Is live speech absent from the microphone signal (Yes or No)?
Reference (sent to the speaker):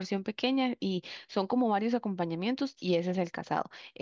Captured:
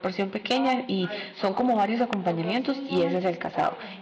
No